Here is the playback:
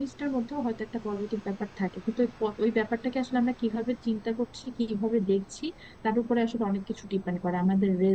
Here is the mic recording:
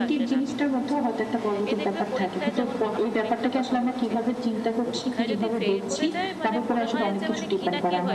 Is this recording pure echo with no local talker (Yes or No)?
No